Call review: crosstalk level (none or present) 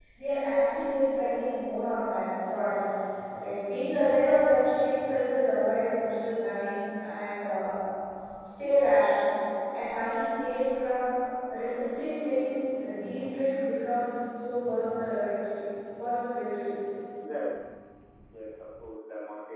none